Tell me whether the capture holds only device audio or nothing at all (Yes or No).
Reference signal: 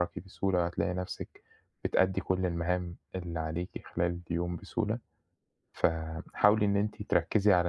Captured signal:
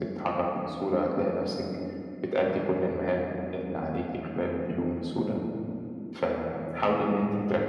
Yes